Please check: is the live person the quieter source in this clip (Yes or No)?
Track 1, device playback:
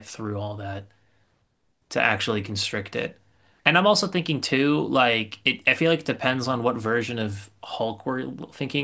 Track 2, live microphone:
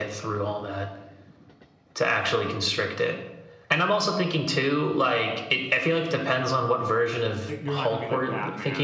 Yes